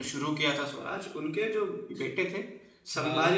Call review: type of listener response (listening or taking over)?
listening